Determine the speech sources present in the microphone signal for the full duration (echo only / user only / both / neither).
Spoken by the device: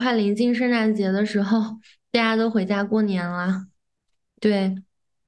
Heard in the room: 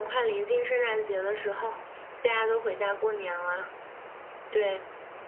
echo only